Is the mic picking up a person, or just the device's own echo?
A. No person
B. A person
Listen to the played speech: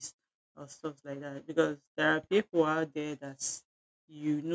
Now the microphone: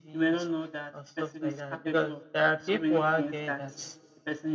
B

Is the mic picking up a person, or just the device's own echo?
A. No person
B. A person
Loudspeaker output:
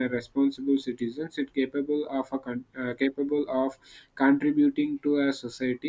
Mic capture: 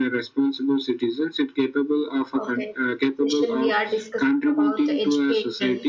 B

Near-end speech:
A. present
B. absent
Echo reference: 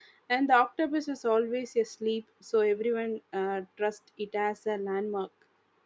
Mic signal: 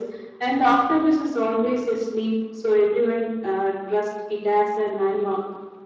B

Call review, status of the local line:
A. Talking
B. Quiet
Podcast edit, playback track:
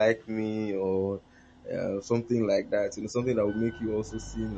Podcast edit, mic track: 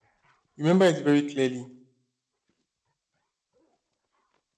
A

